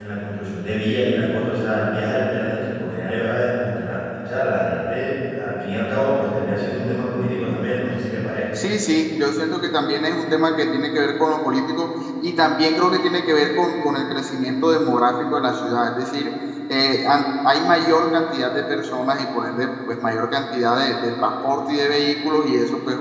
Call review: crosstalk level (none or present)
none